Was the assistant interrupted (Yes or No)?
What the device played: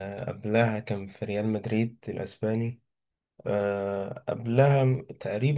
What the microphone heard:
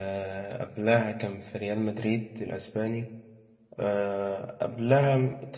No